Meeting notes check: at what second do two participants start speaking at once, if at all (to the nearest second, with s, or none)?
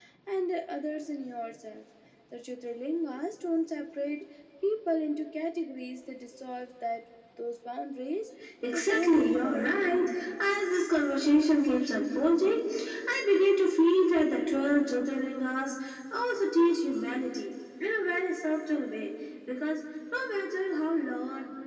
9 s